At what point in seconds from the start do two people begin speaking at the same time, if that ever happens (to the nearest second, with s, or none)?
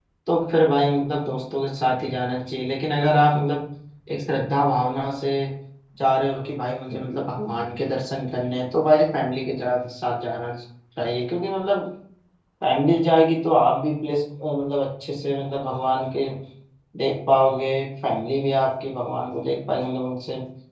none